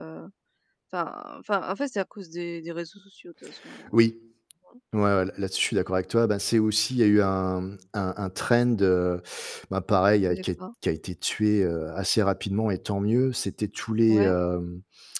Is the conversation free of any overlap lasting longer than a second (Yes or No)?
Yes